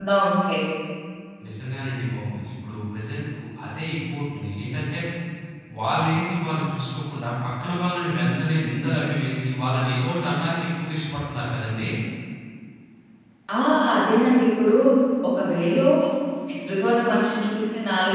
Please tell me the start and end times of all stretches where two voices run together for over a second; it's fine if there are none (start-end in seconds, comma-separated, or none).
none